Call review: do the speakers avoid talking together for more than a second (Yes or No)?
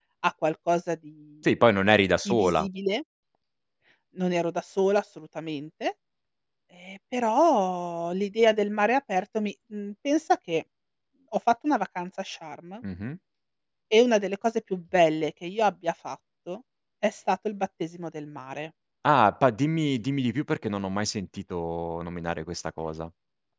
Yes